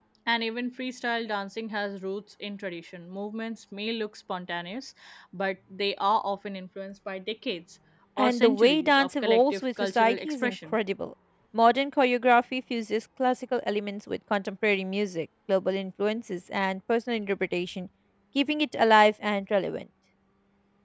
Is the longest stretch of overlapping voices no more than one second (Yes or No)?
No